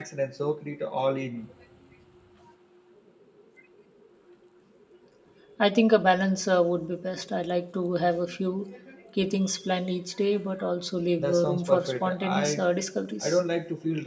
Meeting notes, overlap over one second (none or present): present